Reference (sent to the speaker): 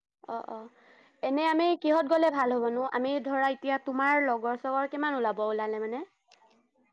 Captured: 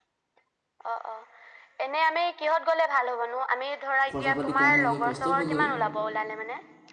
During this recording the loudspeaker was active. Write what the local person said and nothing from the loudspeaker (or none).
খৰচা পাতি কম হ'ল হয়, কষ্ট হ'ল হয়।